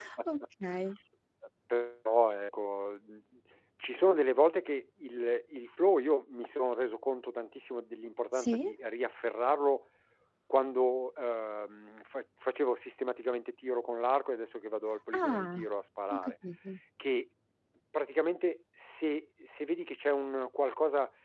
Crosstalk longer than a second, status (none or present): none